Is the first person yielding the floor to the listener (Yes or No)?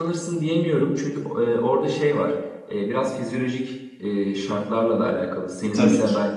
No